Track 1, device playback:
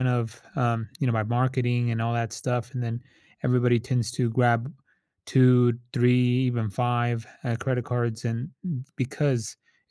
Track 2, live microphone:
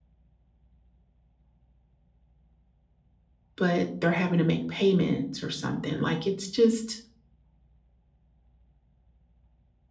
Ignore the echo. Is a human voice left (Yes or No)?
Yes